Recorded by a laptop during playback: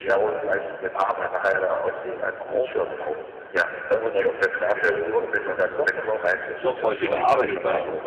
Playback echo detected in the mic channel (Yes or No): Yes